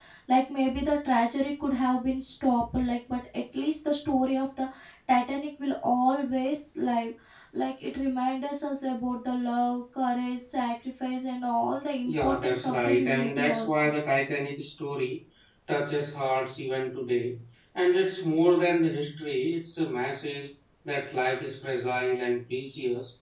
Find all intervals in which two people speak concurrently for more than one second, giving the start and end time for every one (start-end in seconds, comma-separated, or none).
12.0-13.9